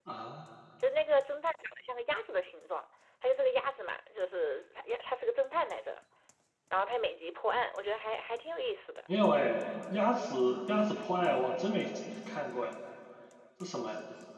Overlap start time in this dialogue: none

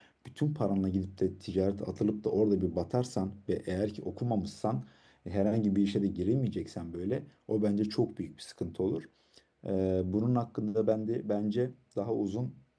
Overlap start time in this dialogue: none

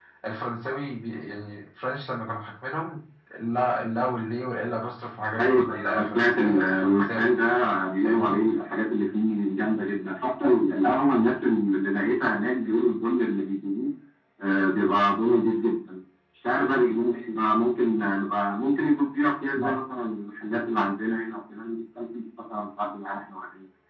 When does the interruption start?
5 s

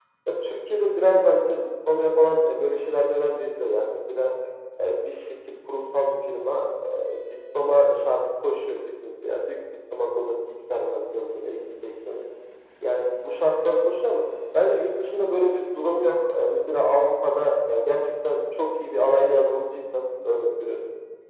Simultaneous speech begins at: none

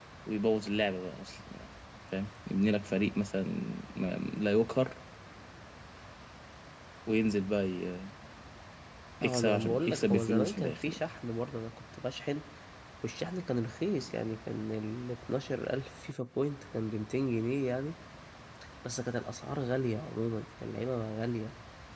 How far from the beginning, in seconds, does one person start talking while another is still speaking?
9 s

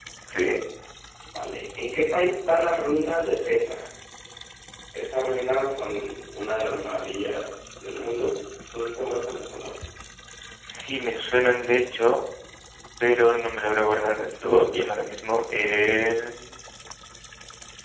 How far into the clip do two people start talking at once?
none

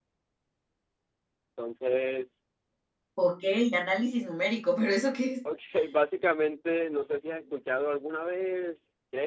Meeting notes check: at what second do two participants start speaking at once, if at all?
none

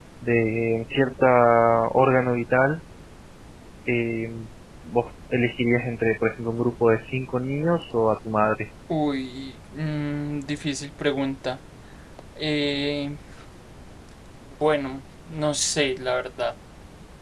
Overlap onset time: none

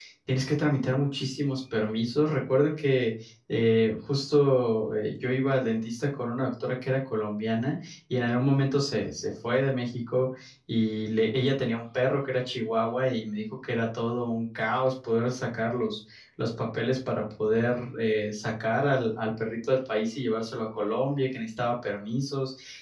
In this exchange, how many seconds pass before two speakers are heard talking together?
none

